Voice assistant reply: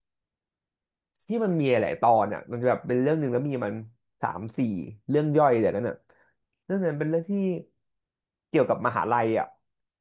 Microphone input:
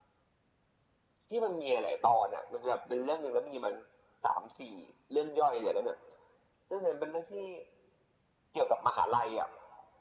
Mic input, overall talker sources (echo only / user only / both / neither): echo only